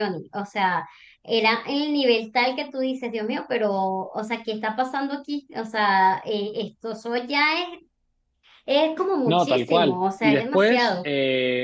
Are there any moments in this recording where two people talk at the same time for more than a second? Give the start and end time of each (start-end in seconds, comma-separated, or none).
9.3-10.9